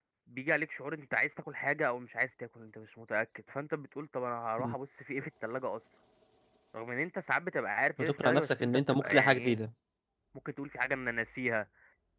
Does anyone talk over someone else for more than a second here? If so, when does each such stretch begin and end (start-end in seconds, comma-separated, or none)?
8.0-9.6